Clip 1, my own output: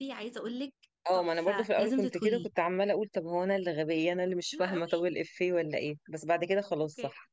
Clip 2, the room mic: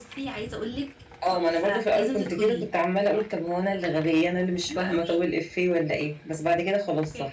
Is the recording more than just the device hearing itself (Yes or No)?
No